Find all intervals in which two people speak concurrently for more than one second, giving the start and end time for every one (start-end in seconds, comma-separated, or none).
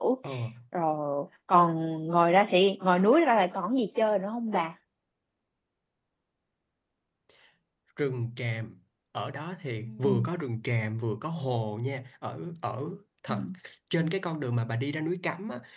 none